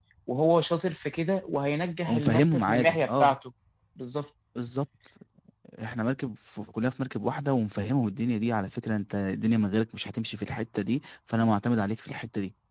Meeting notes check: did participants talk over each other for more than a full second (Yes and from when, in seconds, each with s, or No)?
Yes, from 2.1 s